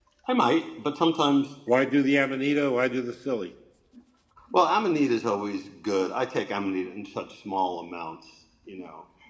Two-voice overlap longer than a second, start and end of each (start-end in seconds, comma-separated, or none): none